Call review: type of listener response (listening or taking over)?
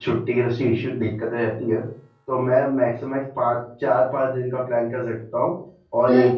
listening